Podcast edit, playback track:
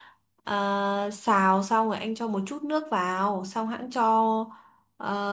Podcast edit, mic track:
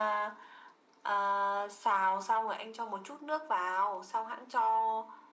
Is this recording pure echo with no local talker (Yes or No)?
Yes